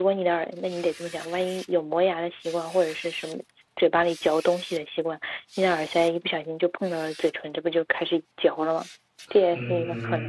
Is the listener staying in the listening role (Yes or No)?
No